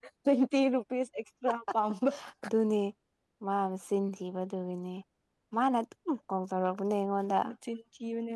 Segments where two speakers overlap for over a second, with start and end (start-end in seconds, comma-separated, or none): none